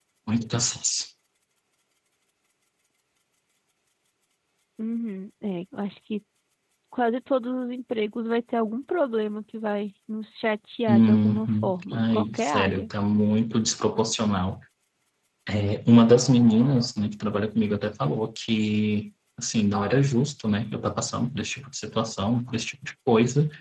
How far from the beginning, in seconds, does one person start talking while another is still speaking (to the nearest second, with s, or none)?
11 s